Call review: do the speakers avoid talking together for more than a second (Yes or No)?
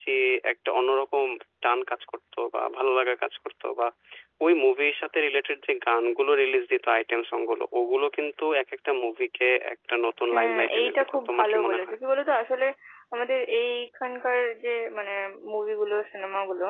No